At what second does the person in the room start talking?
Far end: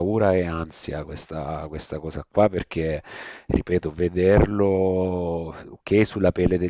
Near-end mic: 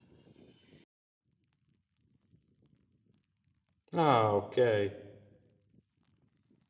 3.9 s

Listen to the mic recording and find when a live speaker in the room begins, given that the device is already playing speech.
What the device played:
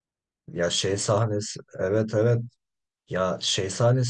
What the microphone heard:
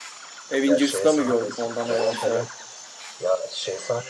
0.5 s

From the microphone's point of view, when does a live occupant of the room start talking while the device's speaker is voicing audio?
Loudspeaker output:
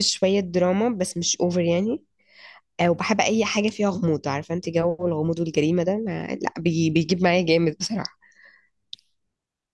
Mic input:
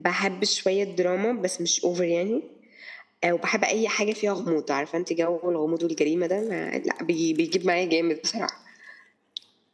none

